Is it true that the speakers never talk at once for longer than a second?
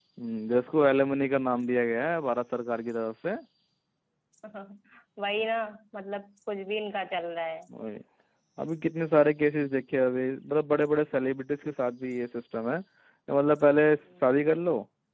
Yes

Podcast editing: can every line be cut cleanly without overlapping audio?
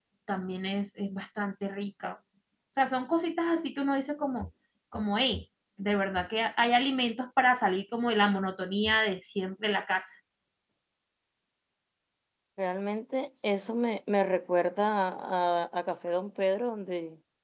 Yes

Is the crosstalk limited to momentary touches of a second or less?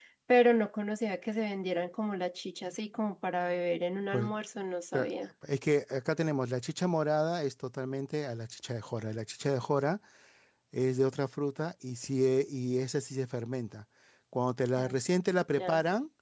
Yes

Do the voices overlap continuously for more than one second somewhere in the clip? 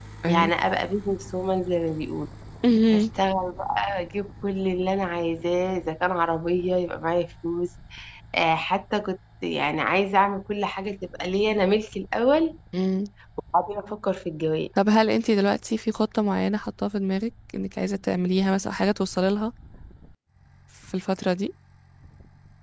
No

